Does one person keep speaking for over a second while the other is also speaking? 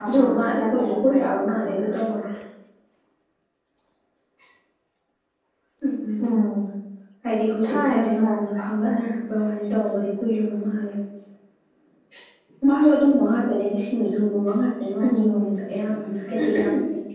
Yes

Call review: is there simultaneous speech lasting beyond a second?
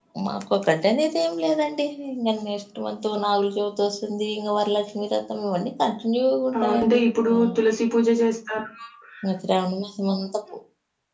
No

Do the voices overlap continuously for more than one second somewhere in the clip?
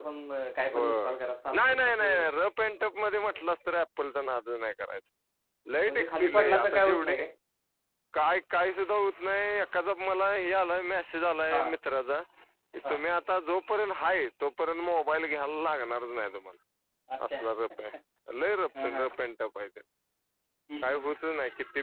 Yes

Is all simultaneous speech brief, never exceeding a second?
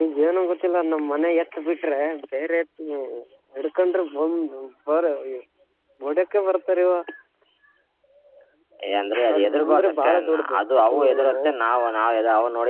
No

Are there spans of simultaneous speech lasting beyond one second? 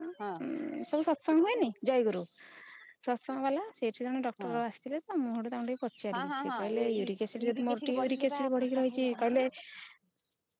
Yes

